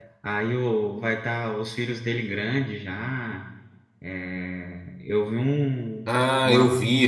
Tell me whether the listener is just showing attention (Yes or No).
No